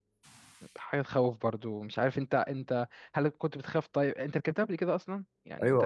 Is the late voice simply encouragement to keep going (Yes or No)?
No